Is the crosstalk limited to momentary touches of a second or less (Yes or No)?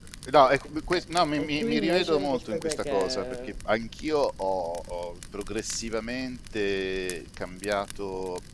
No